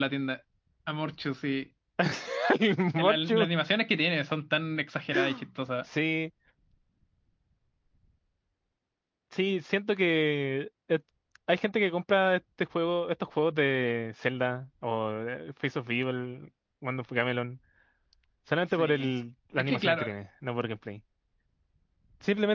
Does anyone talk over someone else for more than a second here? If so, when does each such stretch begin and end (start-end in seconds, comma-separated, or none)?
none